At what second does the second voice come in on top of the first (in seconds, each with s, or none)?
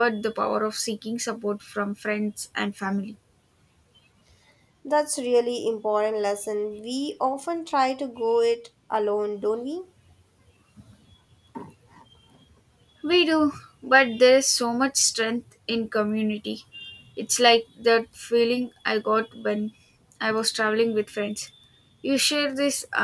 none